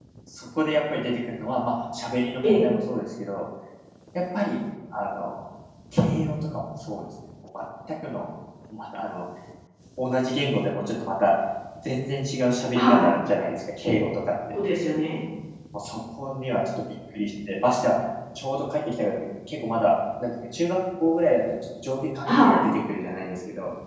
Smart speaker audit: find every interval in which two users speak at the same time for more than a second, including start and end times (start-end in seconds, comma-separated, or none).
none